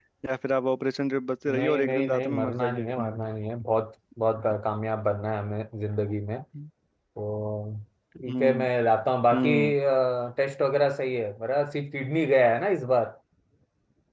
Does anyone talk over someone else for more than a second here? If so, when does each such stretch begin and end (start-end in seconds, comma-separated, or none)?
1.6-3.2